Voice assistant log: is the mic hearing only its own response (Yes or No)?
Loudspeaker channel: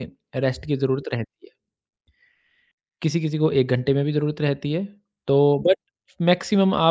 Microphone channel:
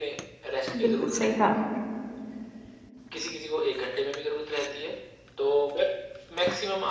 No